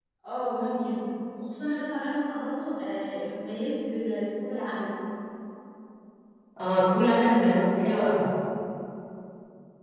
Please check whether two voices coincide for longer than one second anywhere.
No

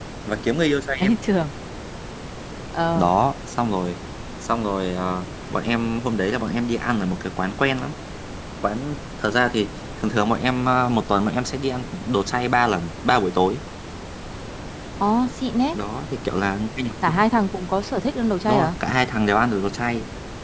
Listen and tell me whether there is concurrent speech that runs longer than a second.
No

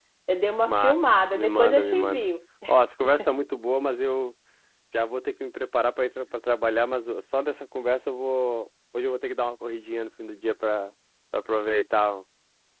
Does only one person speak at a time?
No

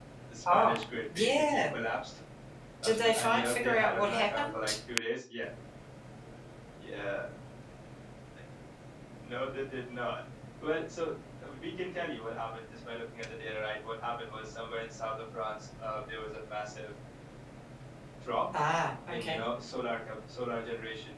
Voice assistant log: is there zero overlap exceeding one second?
No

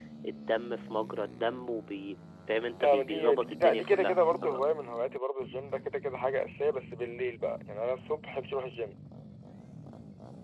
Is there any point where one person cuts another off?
Yes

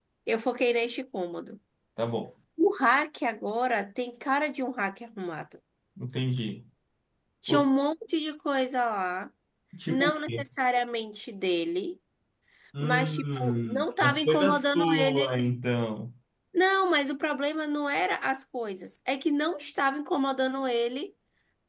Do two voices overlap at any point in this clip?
Yes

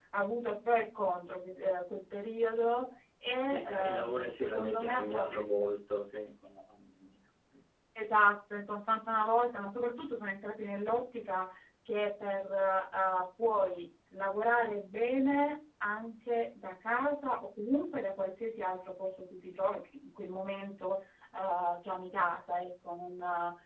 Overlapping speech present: Yes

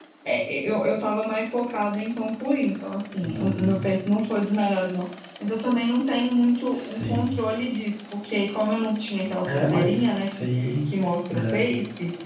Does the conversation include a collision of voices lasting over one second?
Yes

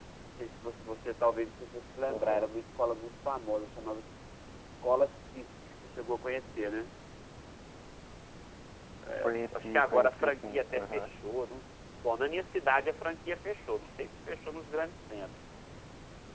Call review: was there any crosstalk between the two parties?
Yes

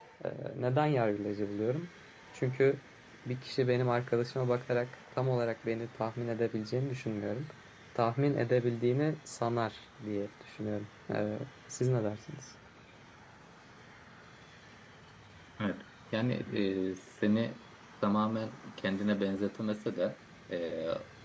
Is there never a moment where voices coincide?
Yes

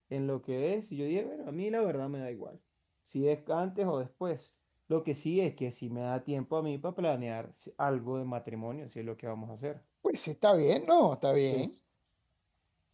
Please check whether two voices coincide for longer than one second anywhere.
No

